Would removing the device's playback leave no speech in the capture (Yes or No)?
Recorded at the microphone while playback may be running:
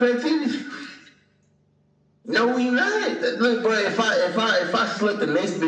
Yes